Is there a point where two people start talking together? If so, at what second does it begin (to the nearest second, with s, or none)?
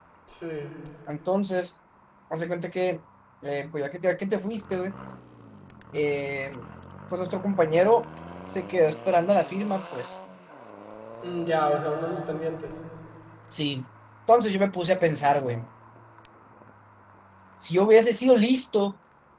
none